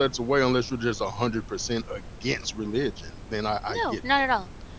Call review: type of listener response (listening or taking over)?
taking over